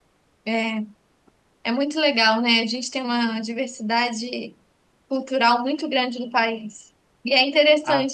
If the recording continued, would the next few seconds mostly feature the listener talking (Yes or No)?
No